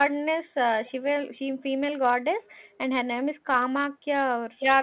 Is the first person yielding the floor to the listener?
Yes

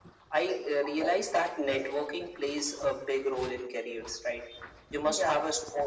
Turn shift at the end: No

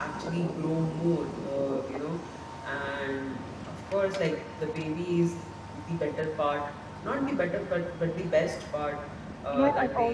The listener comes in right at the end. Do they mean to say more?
Yes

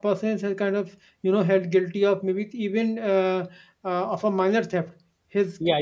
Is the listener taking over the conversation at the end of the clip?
No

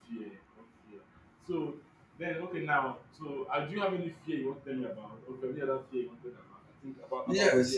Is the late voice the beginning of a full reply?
Yes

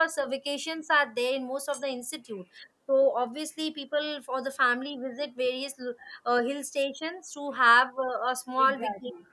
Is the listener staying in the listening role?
No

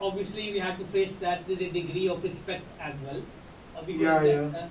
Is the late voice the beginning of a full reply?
No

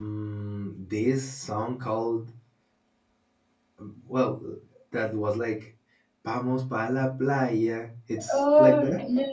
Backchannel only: No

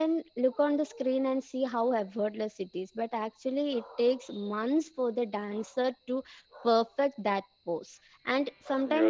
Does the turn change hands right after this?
No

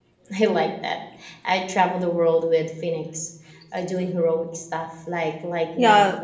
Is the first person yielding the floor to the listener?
No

